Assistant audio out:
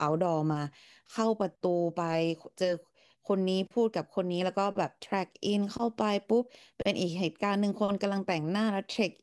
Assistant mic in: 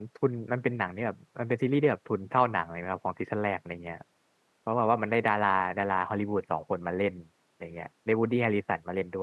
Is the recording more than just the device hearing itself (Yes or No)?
Yes